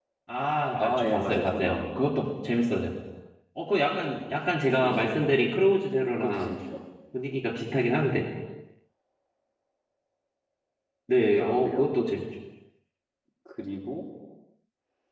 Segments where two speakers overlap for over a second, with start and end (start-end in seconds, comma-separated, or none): 0.8-2.0